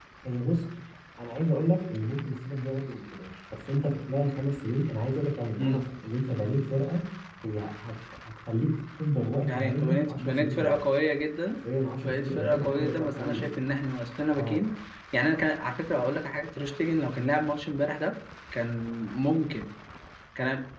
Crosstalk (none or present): present